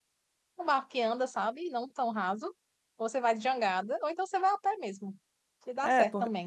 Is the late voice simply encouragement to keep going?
No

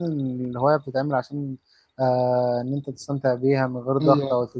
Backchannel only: Yes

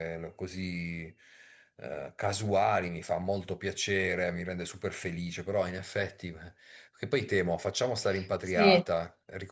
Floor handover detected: No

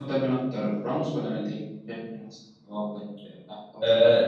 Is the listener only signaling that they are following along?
No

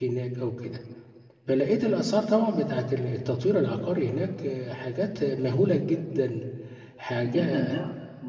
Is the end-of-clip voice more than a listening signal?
Yes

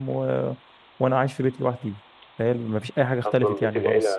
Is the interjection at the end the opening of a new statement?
Yes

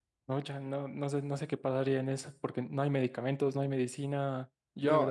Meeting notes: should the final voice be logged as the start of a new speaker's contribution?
No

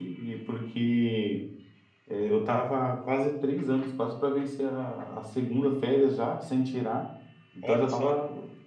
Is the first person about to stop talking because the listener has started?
No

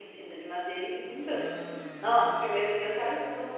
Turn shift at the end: No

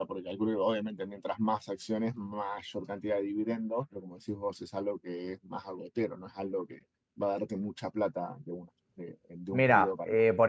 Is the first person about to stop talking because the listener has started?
Yes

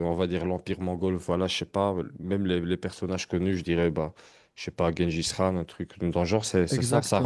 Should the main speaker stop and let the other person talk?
Yes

